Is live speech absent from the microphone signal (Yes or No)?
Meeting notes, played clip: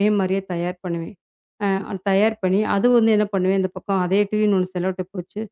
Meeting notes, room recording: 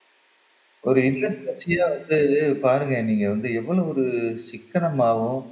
No